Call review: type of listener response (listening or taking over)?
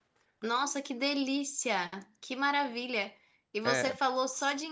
listening